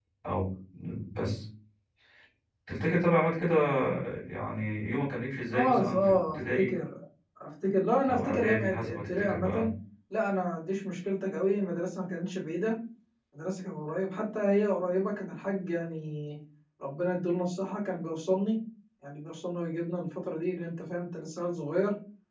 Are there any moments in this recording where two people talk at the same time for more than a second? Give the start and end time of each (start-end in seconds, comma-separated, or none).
5.5-6.8, 8.1-9.7